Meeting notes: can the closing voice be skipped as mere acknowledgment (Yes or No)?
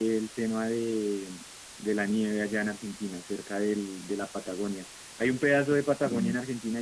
Yes